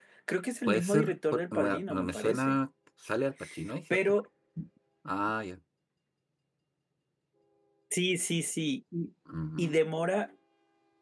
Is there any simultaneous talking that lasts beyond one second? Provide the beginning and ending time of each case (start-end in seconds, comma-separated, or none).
0.7-2.6